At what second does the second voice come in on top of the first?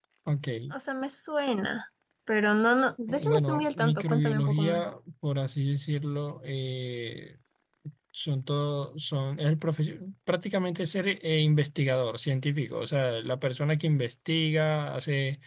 3.1 s

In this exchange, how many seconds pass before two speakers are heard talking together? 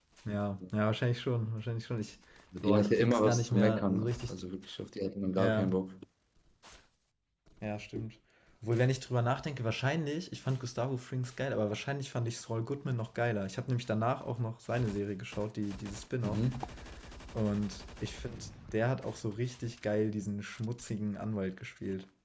2.6 s

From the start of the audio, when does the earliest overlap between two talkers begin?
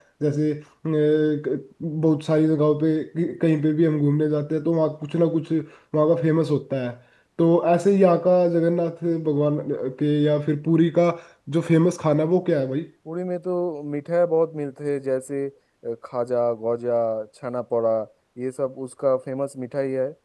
none

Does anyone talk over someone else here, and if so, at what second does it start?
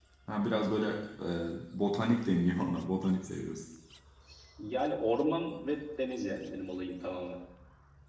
none

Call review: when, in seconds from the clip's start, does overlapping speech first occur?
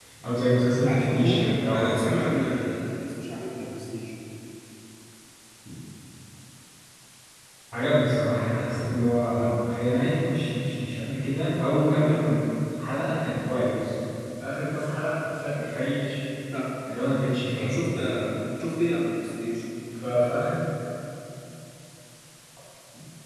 0.9 s

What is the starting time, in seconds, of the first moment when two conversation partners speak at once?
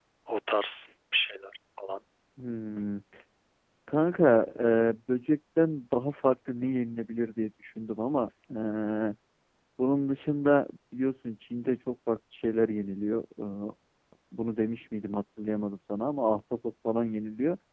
none

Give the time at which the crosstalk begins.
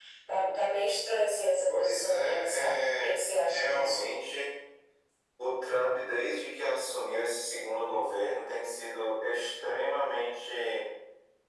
1.7 s

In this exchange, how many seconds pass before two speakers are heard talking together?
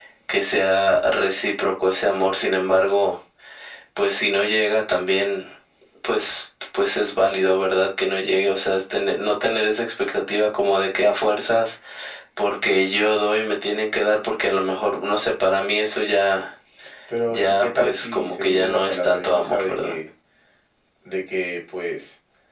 17.3 s

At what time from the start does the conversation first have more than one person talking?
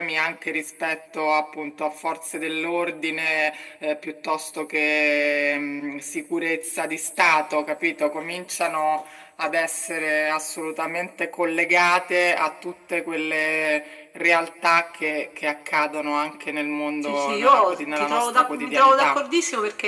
17.1 s

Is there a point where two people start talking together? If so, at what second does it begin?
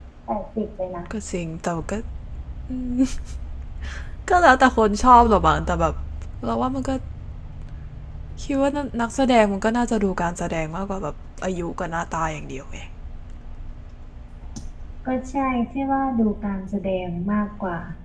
none

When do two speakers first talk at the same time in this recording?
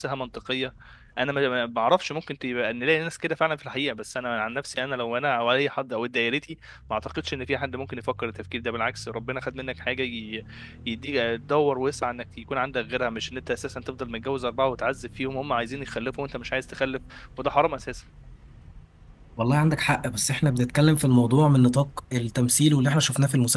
none

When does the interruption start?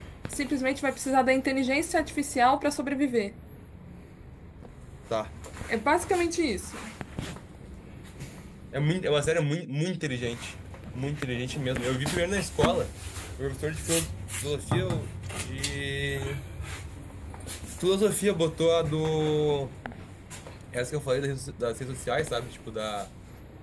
none

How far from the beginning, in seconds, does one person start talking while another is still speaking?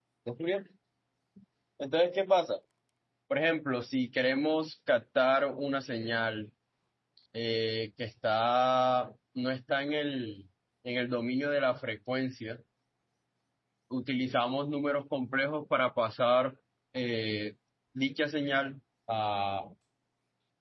none

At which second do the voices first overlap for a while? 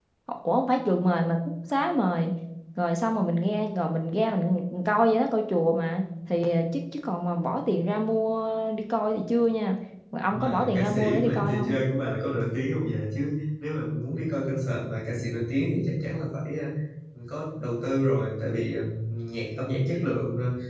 10.3 s

